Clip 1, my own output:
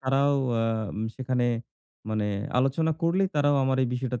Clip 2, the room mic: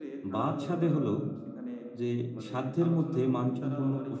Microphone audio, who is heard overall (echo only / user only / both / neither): both